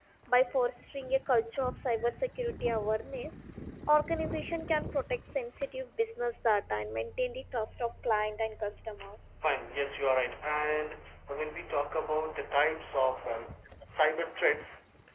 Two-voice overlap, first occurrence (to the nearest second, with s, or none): none